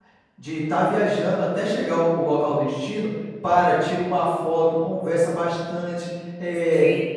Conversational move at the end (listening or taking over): taking over